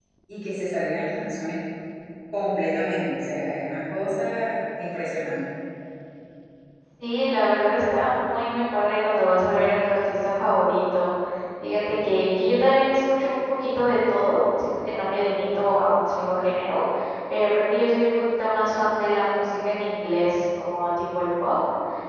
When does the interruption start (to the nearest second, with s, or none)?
none